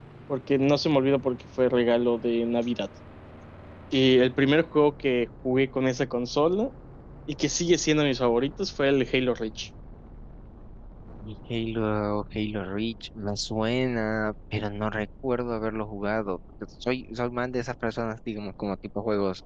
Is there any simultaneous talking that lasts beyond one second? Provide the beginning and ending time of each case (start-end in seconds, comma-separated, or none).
none